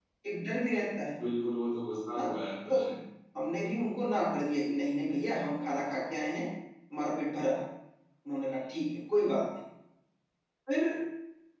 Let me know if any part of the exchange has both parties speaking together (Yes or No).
No